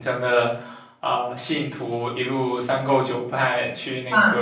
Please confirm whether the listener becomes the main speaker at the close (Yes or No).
No